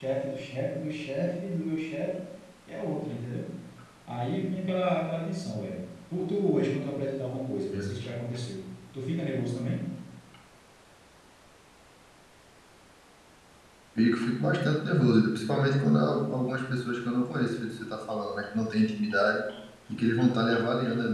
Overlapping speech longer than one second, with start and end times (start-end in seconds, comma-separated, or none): none